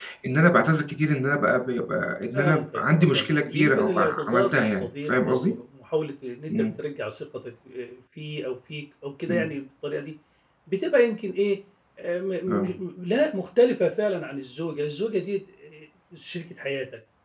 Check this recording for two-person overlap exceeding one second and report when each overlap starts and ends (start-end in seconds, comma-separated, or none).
2.3-5.5